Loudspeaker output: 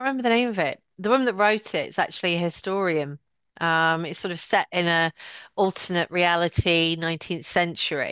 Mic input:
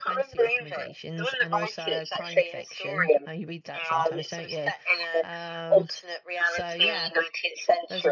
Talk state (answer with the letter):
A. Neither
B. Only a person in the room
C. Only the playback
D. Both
D